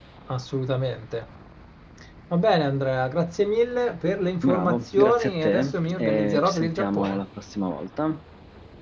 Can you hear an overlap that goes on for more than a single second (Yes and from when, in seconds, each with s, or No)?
Yes, from 4.4 s